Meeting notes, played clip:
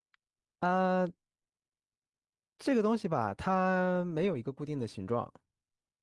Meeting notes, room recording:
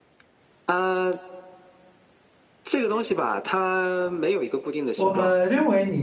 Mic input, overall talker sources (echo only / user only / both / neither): both